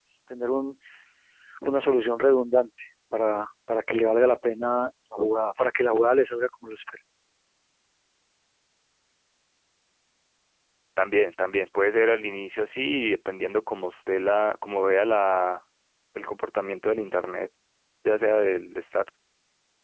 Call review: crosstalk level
none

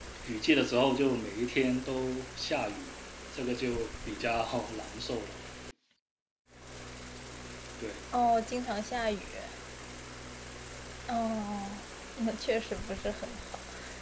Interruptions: none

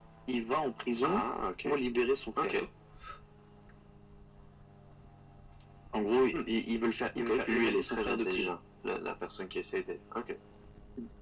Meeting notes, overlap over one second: present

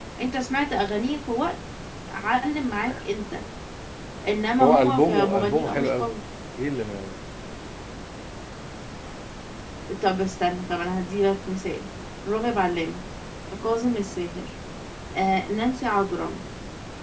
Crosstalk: present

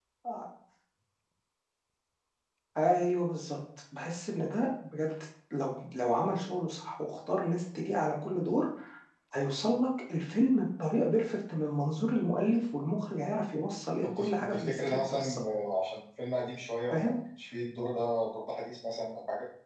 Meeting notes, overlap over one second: present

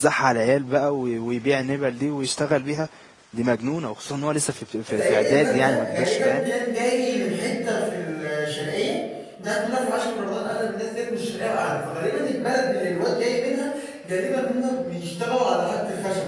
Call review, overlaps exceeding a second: present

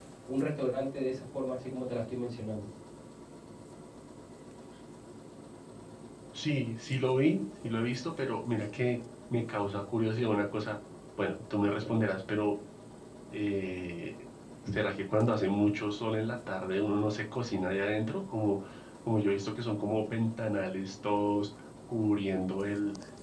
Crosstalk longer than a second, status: none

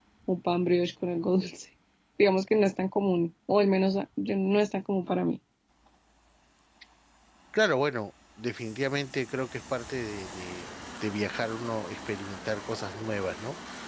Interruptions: none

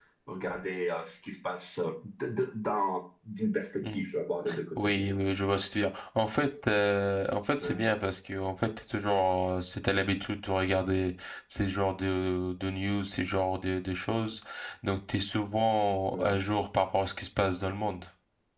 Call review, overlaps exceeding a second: none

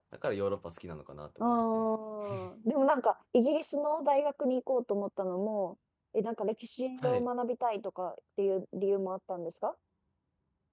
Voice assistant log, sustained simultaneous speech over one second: none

